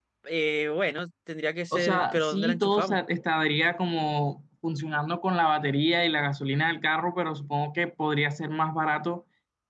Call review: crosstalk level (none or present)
present